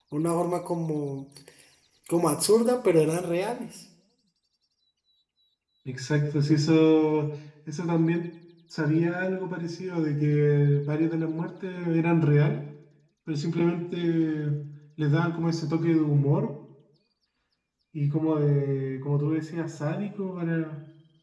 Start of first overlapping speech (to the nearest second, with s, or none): none